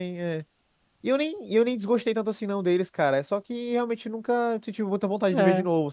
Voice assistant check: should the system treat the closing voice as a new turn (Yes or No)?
Yes